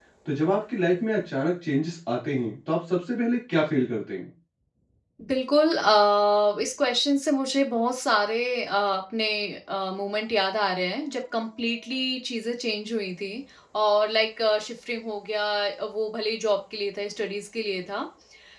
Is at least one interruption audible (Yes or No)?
No